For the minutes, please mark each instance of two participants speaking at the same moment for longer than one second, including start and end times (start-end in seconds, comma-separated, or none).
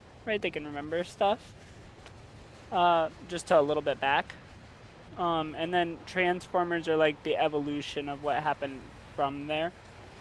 none